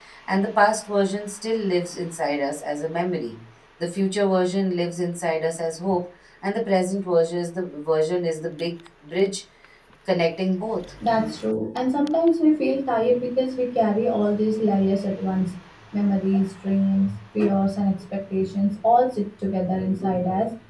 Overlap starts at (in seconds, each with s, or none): none